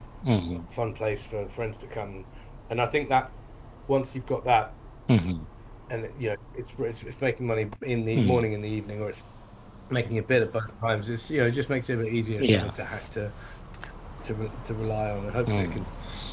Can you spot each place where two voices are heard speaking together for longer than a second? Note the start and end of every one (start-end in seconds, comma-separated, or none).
none